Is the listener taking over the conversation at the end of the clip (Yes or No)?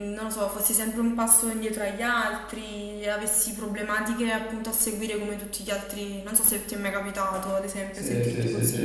Yes